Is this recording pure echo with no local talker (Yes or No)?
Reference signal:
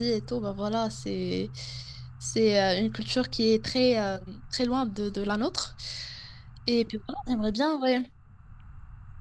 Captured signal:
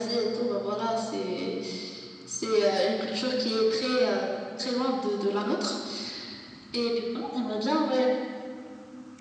Yes